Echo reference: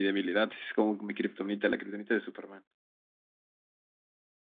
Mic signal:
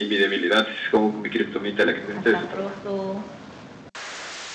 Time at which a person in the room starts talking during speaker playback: 2.2 s

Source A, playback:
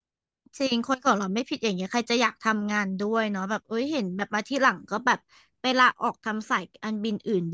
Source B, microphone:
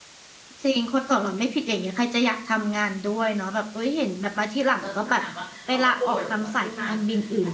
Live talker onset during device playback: 4.8 s

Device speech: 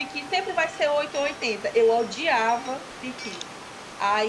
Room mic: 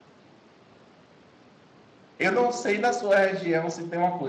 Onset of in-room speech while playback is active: 2.2 s

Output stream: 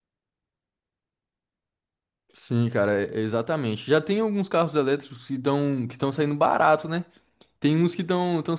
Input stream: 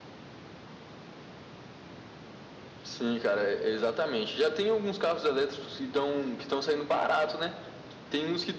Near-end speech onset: none

